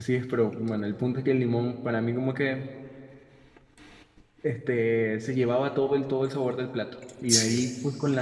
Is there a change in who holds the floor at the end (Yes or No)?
No